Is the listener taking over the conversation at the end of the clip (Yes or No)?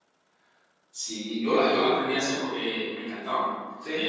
No